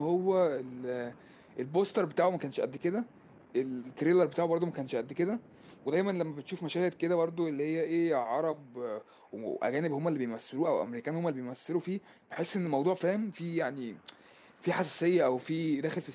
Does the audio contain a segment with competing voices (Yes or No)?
No